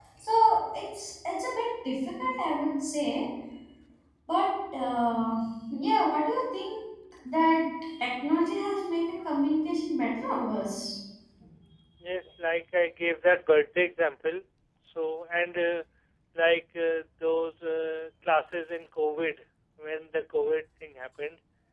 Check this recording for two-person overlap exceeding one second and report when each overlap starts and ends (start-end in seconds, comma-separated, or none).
none